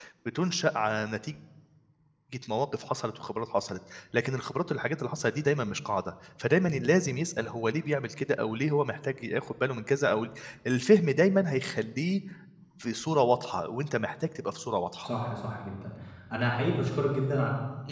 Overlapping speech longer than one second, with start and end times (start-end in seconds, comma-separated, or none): none